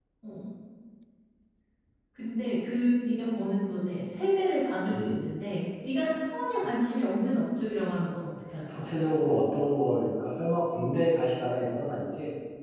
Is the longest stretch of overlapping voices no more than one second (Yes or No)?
Yes